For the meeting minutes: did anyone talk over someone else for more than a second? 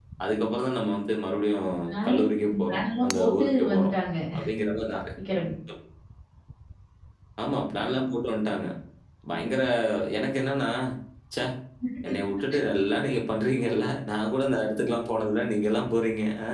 Yes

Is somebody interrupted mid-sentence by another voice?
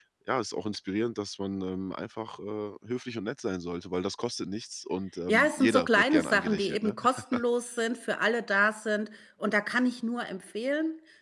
Yes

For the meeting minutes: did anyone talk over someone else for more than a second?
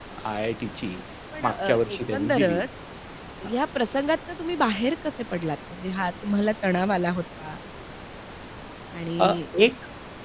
Yes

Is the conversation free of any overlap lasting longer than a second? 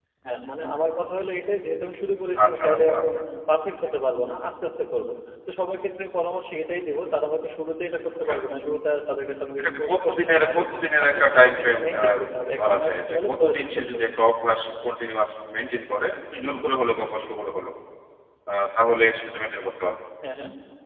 No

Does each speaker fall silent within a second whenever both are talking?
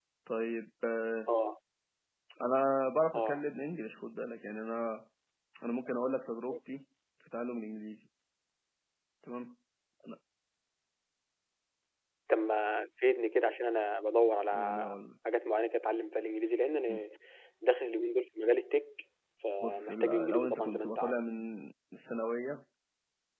No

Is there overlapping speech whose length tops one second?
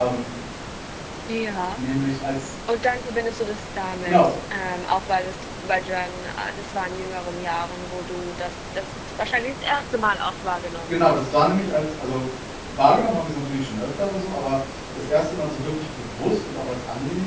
No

